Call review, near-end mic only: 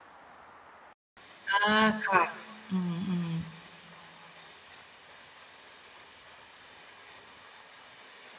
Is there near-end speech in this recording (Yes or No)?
Yes